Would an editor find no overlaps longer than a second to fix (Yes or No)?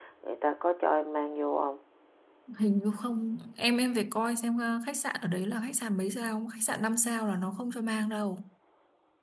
Yes